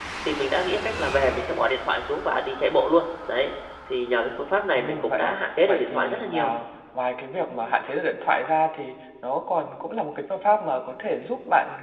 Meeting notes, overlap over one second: present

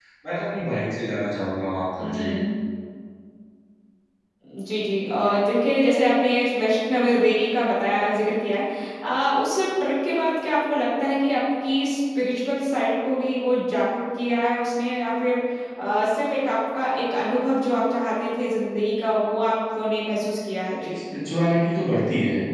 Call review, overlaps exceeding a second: none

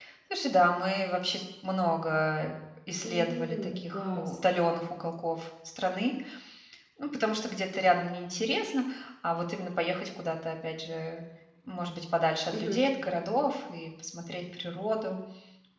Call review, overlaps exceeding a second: present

